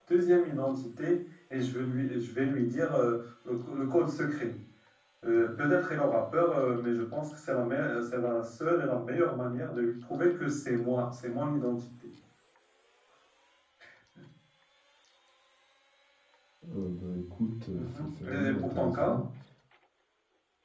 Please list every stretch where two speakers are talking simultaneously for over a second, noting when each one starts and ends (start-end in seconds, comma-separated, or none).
17.7-19.2